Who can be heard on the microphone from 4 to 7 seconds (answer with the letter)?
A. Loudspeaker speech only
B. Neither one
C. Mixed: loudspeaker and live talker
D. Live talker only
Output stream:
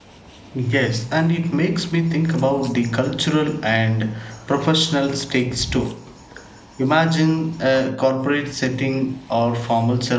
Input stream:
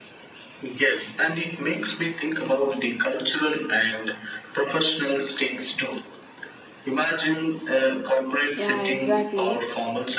A